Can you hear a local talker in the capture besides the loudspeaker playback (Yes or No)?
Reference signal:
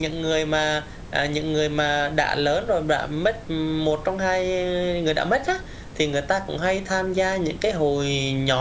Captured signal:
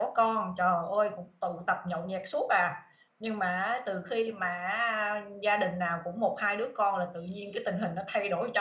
Yes